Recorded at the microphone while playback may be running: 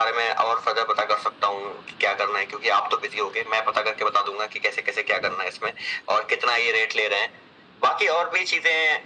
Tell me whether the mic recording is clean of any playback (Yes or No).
No